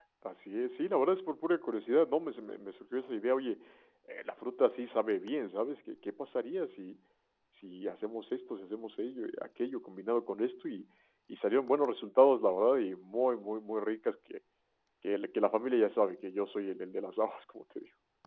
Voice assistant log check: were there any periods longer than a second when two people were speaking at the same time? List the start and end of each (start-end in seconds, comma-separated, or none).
none